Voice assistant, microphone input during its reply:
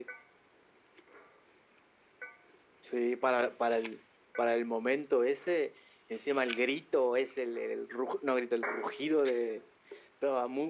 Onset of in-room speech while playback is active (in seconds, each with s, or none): none